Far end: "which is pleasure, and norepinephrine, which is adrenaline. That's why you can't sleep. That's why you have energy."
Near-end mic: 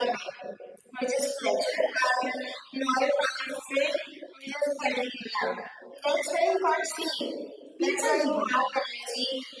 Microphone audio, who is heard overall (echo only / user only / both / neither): both